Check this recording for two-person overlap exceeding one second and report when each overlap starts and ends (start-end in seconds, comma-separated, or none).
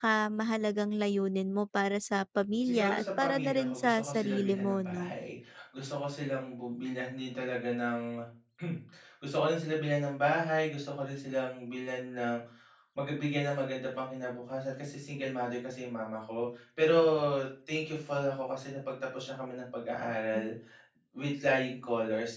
2.6-5.1